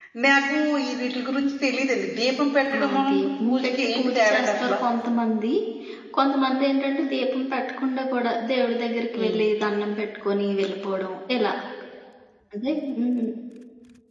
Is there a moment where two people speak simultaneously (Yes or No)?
Yes